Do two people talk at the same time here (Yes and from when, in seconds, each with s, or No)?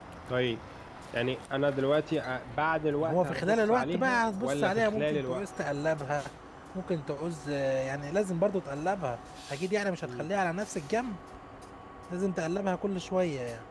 Yes, from 3.0 s